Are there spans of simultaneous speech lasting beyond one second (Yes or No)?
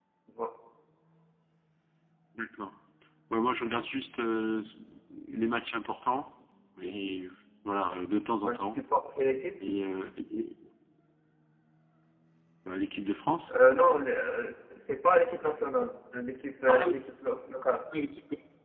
No